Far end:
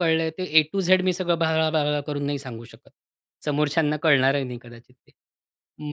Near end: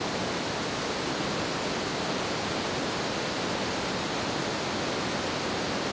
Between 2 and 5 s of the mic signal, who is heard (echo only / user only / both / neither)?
neither